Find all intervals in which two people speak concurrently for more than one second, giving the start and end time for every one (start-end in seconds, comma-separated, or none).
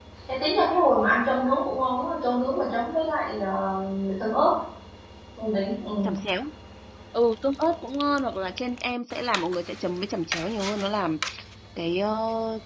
none